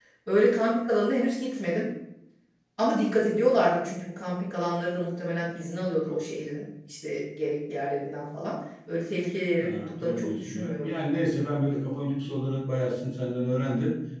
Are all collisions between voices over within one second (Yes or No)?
No